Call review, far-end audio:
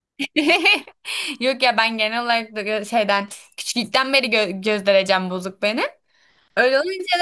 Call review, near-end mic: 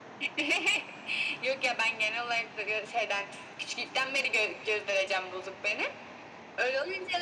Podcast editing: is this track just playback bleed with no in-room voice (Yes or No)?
Yes